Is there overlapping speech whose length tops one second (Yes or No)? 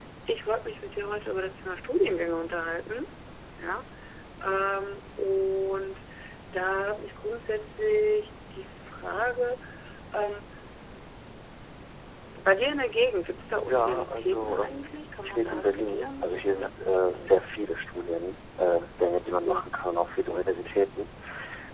Yes